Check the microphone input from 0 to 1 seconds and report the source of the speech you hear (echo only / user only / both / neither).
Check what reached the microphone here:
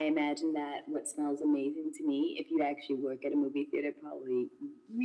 echo only